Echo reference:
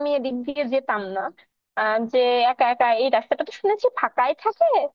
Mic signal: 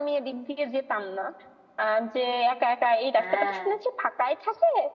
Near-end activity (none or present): present